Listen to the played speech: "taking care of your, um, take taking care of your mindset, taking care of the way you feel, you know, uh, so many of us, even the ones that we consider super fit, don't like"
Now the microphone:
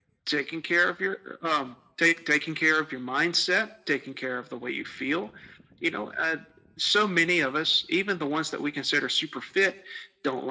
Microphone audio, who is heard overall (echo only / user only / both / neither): echo only